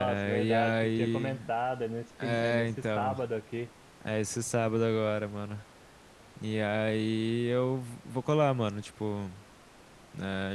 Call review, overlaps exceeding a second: present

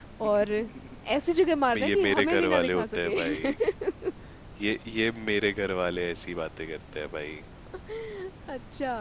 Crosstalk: present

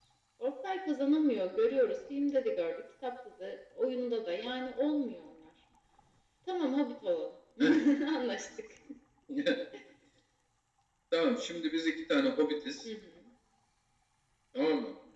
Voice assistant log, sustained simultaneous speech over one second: none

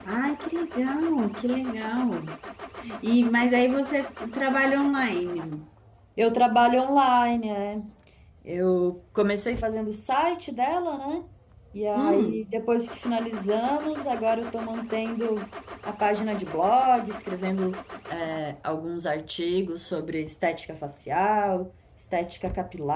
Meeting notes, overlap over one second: none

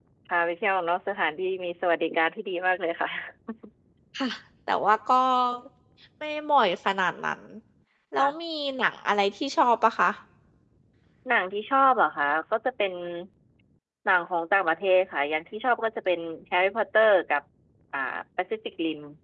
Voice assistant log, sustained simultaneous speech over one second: none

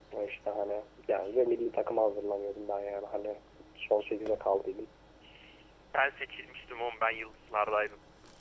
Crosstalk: none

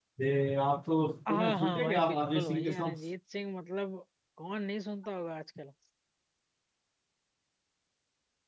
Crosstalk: present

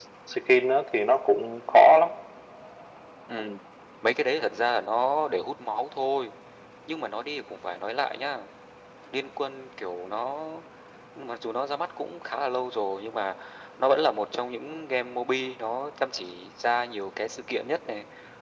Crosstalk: none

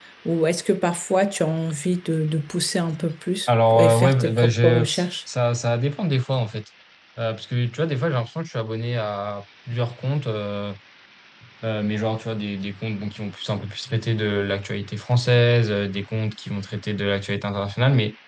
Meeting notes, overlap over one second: present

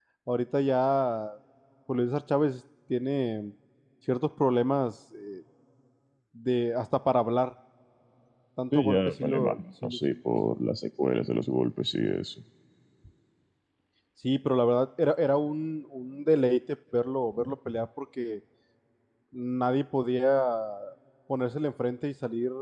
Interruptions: present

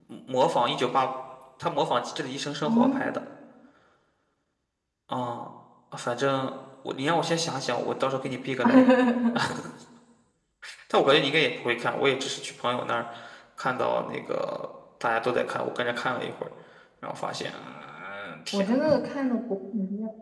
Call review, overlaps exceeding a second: none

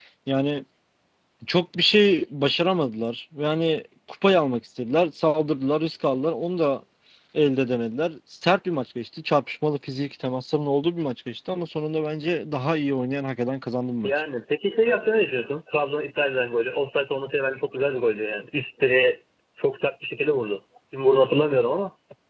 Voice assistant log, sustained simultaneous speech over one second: none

